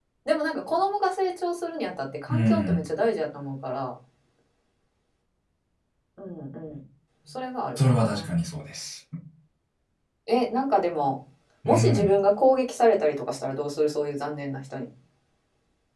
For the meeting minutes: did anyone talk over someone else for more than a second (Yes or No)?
No